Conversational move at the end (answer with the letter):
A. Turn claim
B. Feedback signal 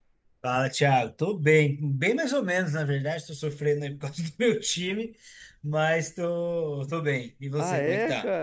A